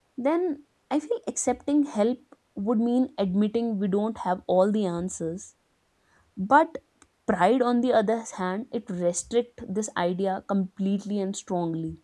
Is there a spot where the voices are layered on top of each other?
No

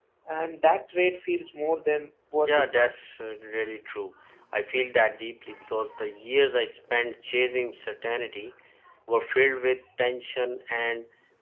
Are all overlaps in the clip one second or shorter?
Yes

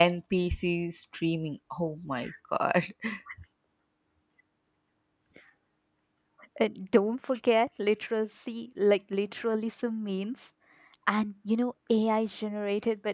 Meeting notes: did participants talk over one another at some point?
No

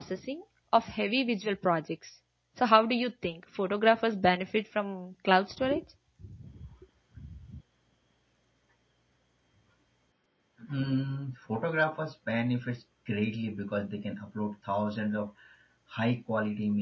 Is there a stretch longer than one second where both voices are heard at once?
No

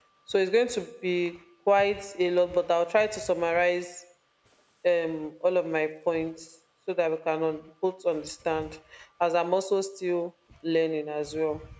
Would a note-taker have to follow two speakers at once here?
No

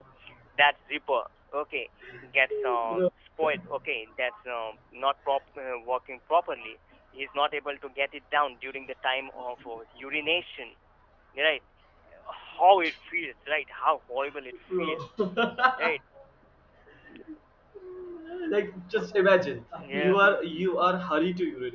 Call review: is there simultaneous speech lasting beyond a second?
No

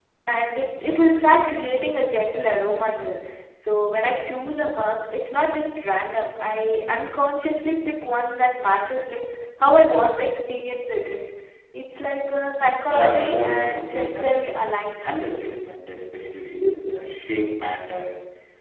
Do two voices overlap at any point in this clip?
Yes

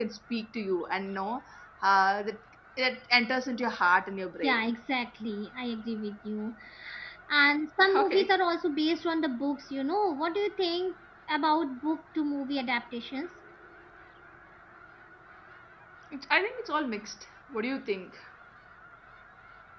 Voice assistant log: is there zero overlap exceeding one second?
Yes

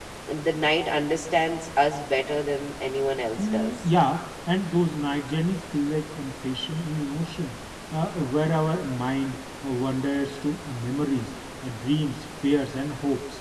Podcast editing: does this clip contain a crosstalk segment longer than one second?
No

